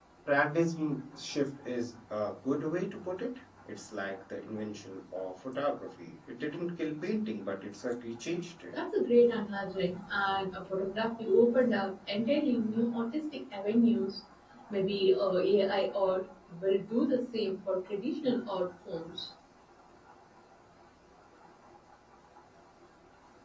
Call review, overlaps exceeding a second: none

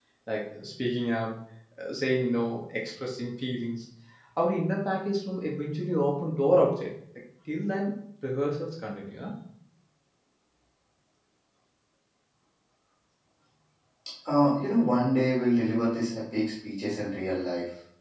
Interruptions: none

